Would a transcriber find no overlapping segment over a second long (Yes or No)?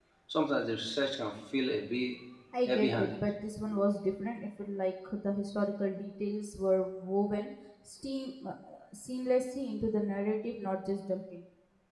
Yes